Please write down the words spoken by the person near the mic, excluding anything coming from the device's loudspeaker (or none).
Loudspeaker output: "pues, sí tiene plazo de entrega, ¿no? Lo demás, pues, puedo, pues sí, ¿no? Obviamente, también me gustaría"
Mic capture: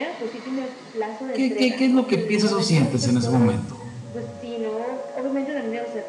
¿Qué qué qué es lo que piensas o sientes en ese momento?